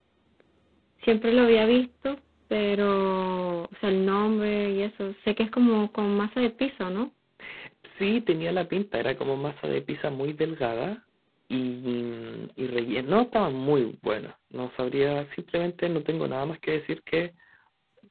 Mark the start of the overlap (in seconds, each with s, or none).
none